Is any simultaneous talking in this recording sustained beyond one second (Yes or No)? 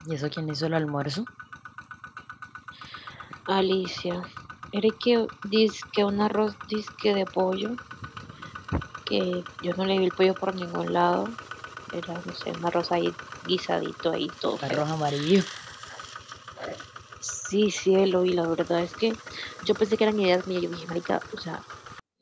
No